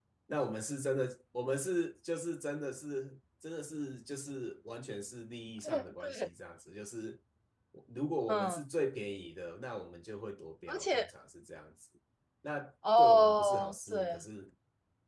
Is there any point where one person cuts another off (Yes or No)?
Yes